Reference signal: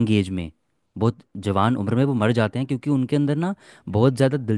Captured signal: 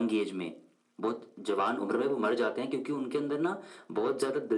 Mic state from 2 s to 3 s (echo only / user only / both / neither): echo only